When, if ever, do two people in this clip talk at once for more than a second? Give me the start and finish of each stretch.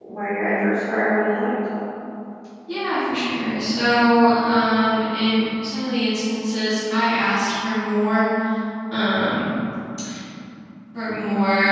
none

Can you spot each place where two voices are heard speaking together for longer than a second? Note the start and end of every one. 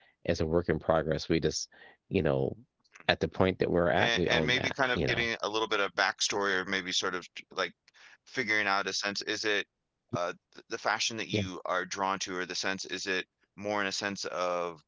4.0-5.3

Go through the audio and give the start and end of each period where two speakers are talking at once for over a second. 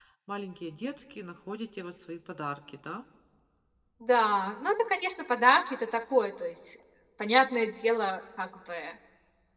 none

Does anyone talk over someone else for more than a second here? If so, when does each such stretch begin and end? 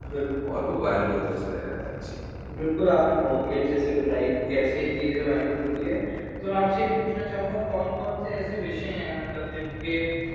none

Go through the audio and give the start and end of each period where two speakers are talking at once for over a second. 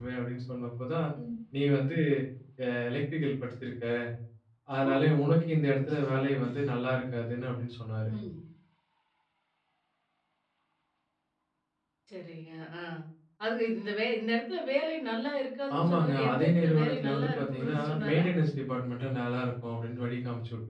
15.8-18.2

